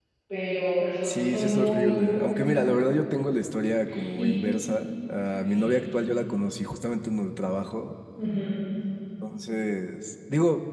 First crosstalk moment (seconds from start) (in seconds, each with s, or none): 1.0 s